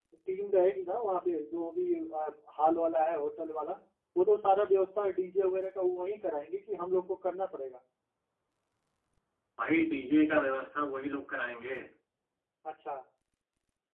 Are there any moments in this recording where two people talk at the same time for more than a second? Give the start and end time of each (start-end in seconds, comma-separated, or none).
none